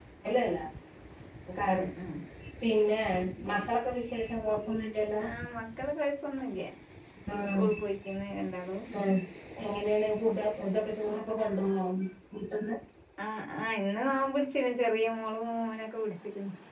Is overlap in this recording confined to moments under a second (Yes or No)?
Yes